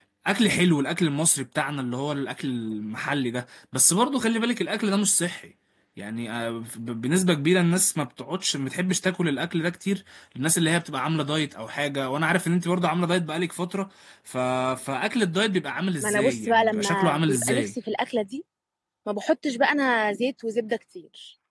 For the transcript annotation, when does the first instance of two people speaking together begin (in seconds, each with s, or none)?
16.0 s